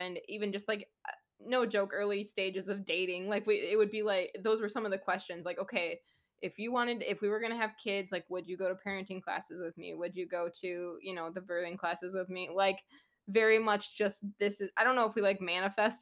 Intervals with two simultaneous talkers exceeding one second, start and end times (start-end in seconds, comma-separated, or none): none